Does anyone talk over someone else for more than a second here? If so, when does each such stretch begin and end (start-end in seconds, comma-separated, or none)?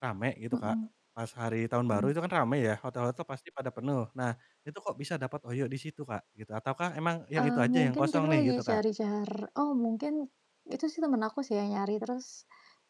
7.4-8.8